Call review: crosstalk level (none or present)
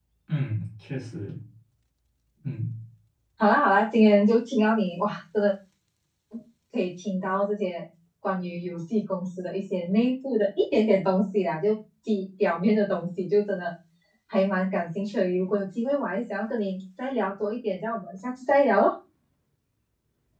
none